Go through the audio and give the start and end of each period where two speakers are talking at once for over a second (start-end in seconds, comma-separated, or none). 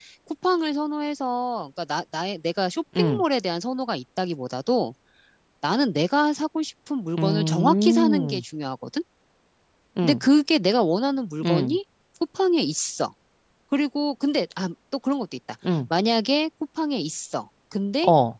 7.2-8.4